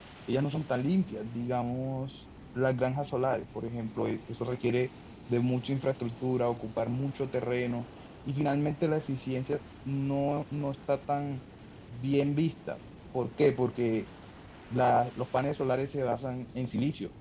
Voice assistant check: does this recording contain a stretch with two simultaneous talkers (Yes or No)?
No